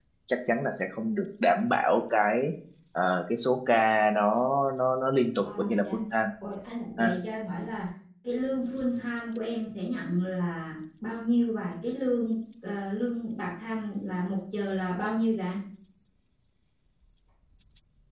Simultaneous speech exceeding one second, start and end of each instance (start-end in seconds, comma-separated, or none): none